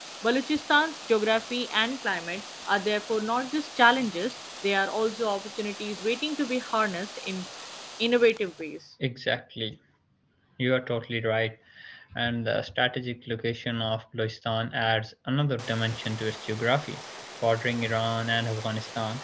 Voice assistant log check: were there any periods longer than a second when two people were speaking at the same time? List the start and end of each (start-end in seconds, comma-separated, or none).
none